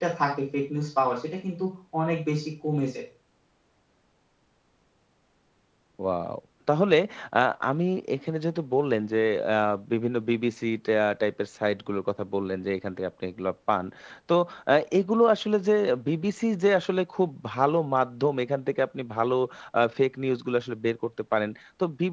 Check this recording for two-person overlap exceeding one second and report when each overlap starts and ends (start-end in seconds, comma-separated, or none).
none